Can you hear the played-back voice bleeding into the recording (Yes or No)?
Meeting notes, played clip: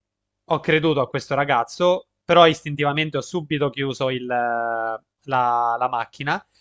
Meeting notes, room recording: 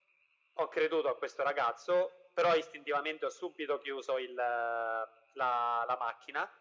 Yes